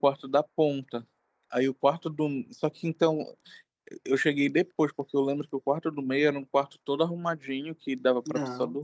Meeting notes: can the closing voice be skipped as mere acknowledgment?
Yes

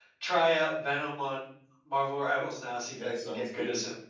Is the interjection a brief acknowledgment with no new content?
No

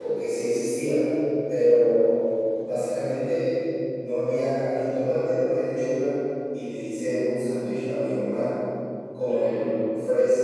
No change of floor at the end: Yes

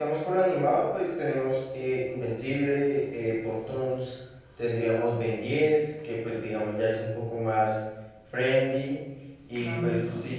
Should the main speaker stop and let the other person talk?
No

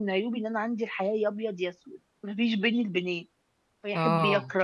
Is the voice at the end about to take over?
No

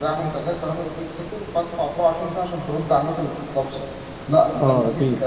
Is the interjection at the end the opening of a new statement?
No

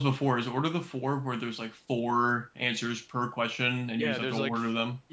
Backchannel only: No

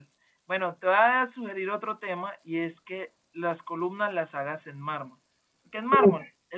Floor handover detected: No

